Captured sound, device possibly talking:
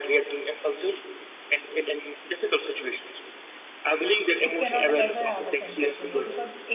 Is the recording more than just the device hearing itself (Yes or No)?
Yes